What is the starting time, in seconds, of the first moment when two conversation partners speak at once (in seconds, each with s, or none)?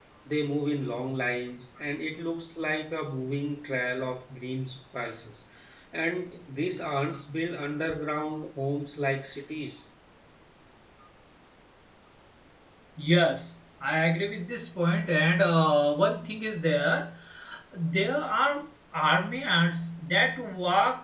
none